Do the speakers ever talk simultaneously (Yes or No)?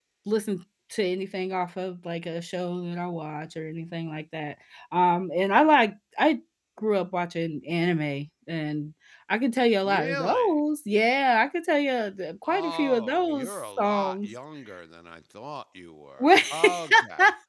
Yes